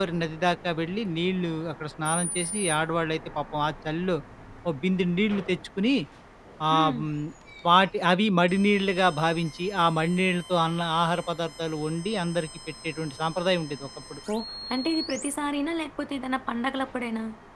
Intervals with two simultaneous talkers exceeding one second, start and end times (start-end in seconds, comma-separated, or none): none